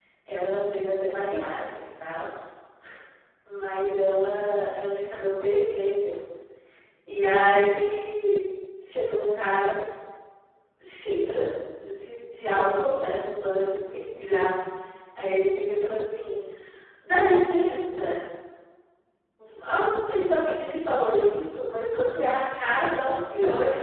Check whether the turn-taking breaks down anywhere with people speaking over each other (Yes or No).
No